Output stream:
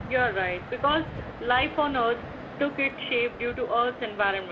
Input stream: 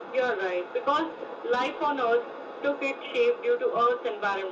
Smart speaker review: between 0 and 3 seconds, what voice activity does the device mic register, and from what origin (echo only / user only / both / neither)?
echo only